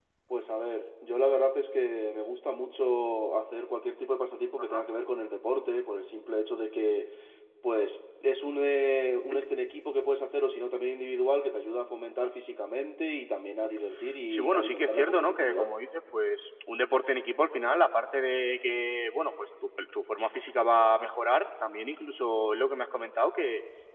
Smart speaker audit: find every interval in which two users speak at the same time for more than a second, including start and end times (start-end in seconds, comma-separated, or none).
14.3-15.7